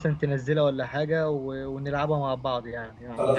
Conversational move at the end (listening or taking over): taking over